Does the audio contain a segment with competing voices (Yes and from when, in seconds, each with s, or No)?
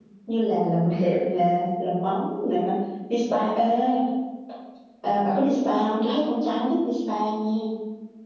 No